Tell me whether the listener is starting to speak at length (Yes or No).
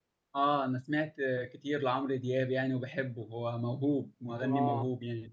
Yes